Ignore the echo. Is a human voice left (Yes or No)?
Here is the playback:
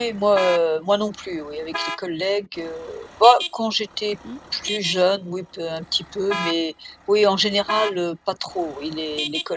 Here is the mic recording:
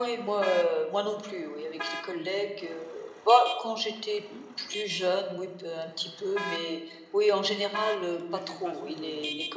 Yes